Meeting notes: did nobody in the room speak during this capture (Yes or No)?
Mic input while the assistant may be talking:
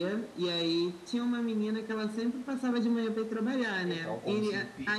No